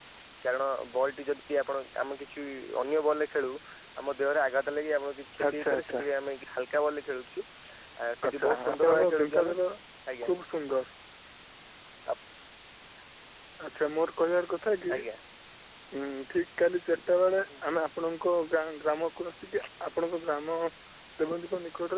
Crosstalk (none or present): present